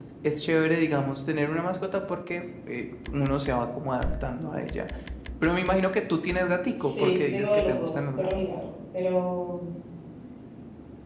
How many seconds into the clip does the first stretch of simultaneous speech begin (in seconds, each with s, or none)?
6.8 s